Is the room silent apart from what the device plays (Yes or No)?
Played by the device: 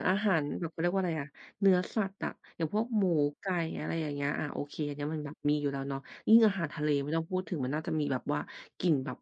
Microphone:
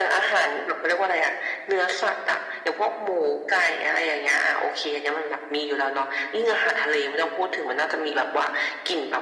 Yes